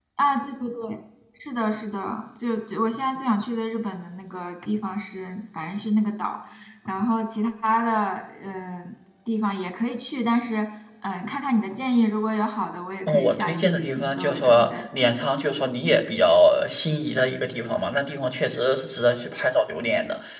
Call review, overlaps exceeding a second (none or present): present